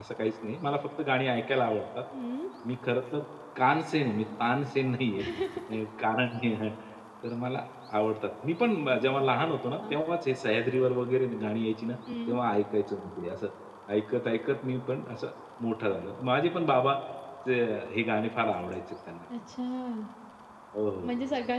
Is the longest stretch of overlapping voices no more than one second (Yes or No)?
Yes